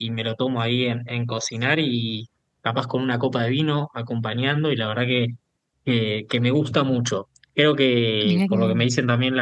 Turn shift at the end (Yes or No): No